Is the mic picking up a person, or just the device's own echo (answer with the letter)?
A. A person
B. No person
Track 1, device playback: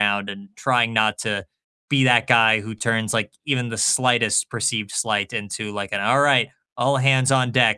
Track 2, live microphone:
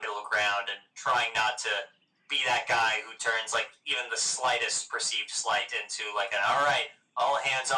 B